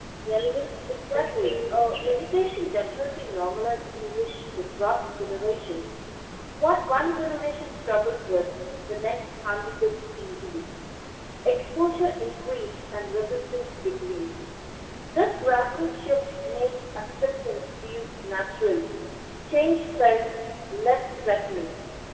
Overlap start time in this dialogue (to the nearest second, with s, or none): 1 s